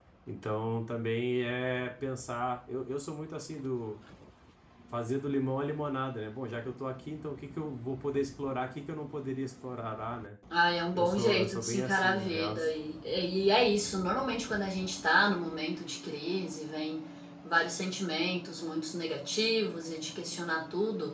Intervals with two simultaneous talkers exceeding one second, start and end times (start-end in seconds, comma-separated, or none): 10.9-12.5